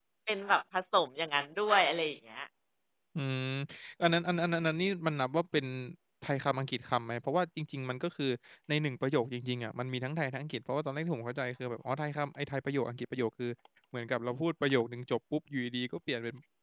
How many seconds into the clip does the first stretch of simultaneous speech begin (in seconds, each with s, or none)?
none